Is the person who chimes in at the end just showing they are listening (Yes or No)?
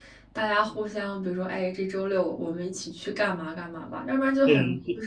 No